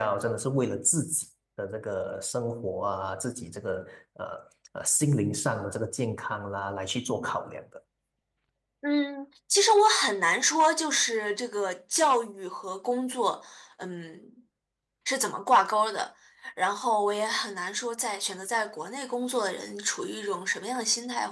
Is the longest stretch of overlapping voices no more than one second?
Yes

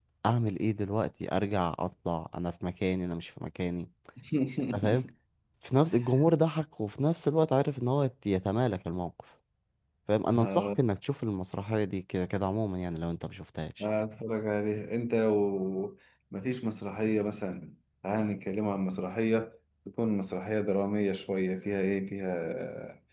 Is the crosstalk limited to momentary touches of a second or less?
Yes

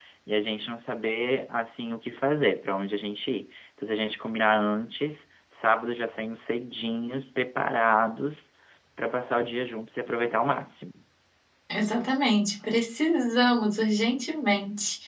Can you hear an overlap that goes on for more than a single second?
No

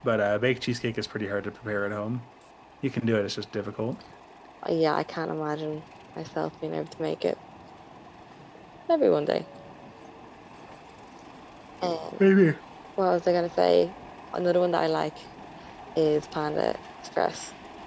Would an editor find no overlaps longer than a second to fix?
Yes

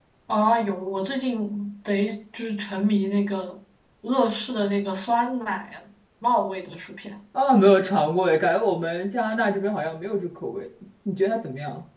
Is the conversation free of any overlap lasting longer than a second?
Yes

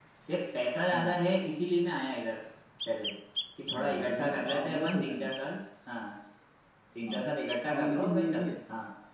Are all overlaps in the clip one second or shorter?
No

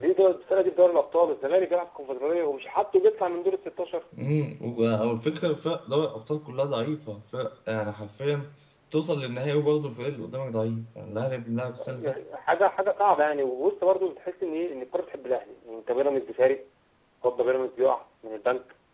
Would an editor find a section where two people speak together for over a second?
No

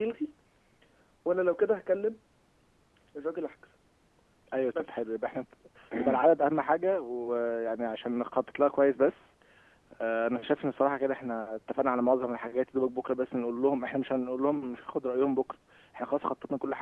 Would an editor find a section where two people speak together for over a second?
No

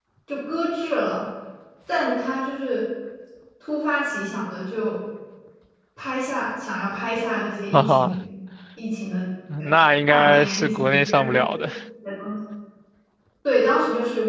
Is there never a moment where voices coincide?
No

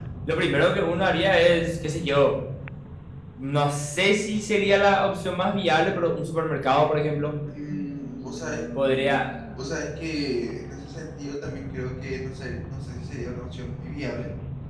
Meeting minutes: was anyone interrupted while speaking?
No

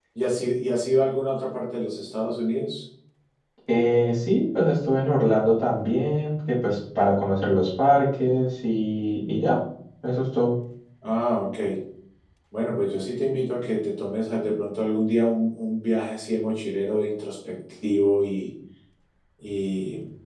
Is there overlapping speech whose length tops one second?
No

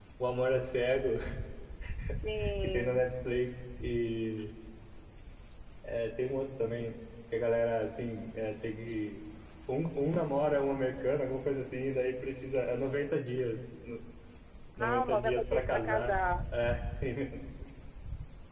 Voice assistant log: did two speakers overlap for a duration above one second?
Yes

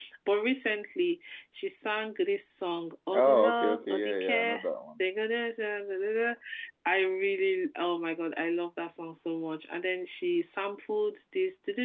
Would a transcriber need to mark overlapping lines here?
Yes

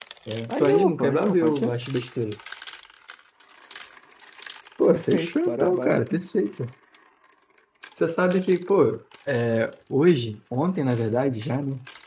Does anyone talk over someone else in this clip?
Yes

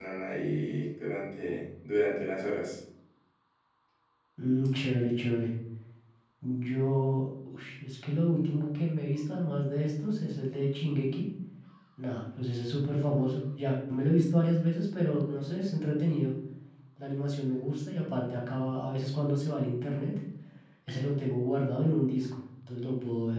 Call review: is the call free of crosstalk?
Yes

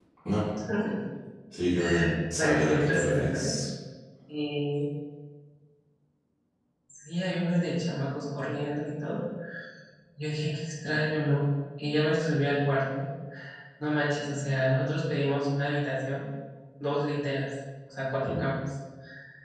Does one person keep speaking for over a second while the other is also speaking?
Yes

